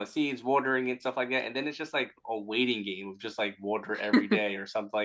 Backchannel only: Yes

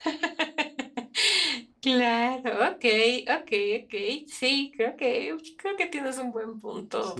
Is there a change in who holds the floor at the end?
Yes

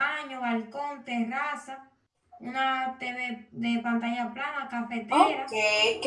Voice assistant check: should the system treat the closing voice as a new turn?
Yes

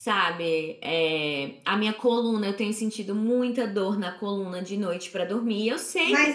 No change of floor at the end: No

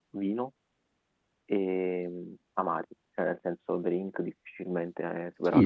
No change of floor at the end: No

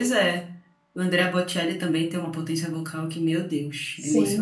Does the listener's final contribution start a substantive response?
Yes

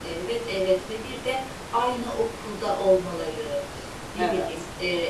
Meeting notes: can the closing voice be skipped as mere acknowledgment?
Yes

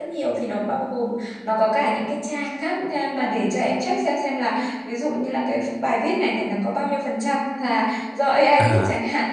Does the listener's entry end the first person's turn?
No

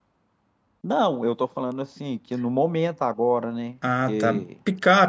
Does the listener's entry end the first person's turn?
Yes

